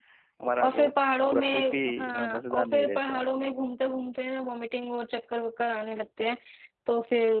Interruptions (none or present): present